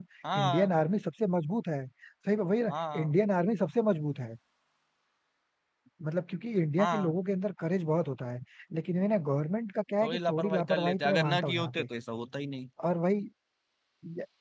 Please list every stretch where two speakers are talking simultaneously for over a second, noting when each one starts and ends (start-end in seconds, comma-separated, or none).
10.0-11.9